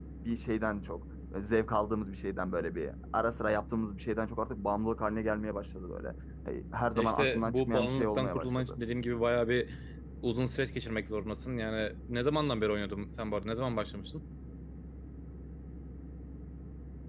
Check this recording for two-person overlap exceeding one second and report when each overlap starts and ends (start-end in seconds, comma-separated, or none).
7.0-8.7